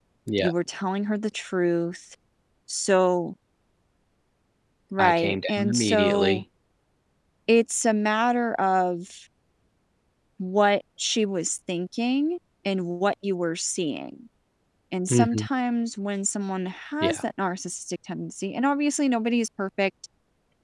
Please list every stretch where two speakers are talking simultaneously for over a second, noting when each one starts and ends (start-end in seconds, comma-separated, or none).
5.0-6.4